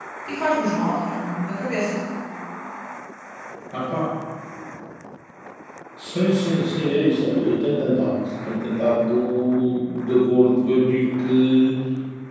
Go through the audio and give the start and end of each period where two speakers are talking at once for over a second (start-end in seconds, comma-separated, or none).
none